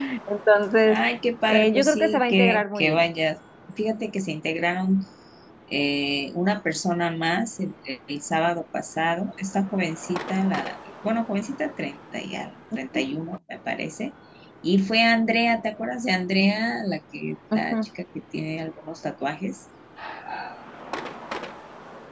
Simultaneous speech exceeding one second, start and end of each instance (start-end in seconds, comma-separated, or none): 1.5-3.1